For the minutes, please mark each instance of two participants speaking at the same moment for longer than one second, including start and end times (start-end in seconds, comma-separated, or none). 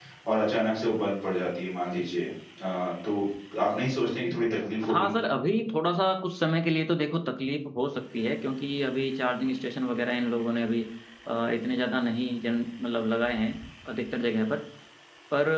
none